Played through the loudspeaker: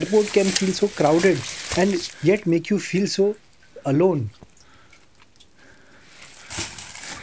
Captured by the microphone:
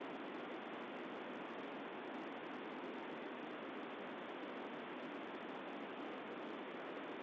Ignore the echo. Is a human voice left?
No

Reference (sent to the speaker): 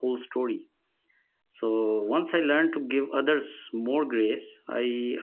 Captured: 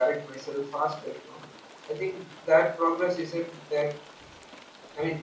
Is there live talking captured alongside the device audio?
Yes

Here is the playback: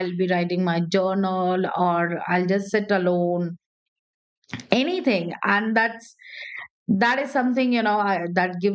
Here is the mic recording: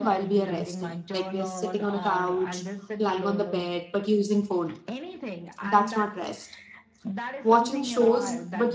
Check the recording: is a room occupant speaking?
Yes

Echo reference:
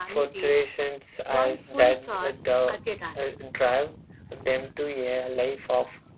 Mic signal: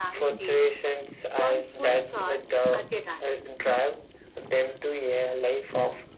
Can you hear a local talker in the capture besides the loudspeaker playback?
No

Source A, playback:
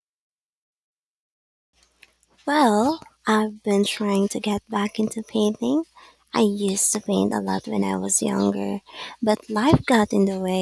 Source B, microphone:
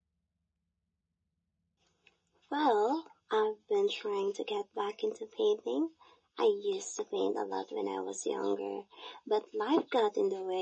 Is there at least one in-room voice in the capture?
No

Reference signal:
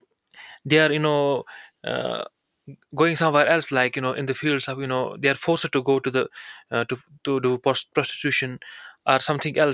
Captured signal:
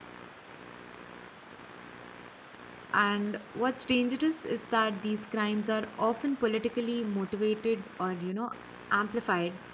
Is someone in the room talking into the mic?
Yes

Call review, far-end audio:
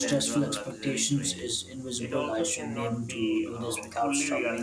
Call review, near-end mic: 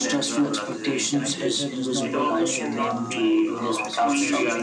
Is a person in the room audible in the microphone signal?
Yes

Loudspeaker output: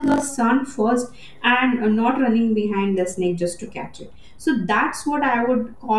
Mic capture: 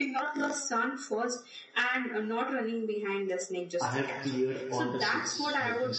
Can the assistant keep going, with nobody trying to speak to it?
No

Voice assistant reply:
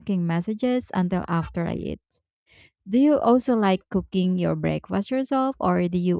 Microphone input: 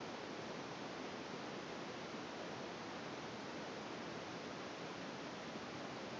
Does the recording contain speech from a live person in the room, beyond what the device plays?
No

